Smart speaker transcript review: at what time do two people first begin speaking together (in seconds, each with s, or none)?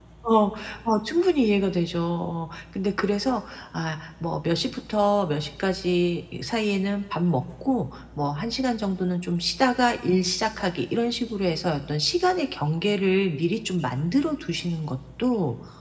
none